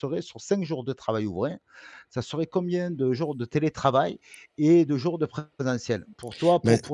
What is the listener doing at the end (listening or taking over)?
listening